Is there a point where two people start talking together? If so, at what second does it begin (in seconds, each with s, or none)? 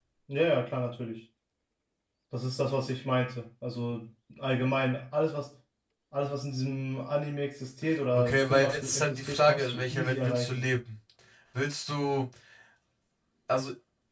8.1 s